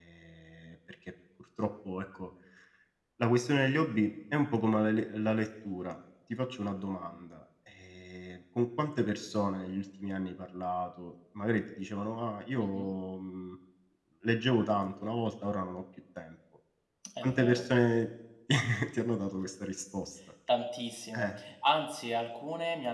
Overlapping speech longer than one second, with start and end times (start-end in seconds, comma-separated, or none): none